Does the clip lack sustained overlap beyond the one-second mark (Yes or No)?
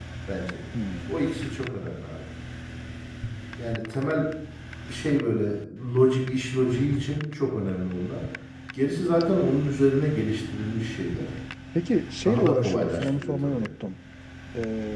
No